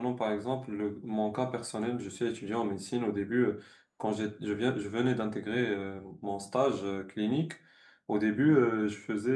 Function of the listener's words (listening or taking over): listening